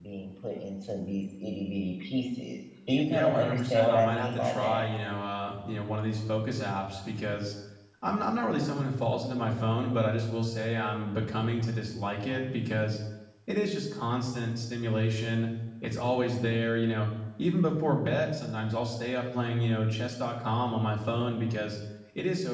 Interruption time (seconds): 3.1 s

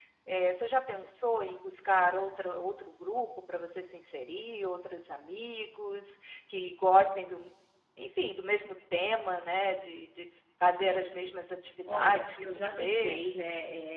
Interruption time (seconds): 11.9 s

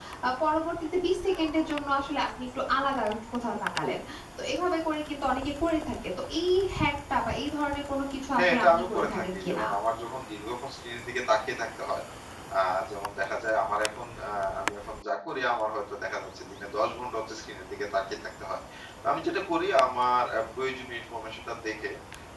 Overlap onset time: 8.4 s

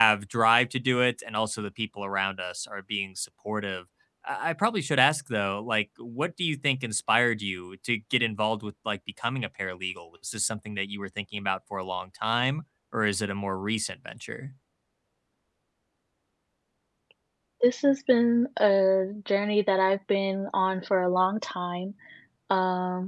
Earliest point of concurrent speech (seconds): none

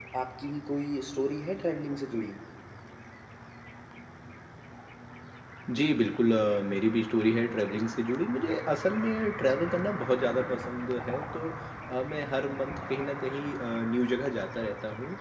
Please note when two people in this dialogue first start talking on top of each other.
none

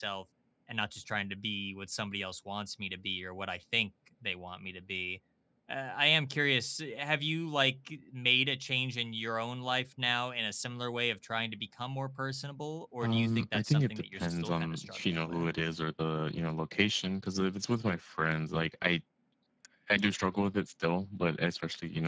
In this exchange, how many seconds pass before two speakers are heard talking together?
13.0 s

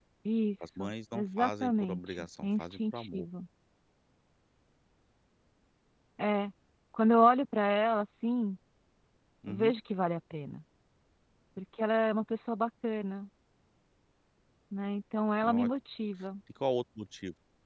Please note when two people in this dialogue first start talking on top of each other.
0.6 s

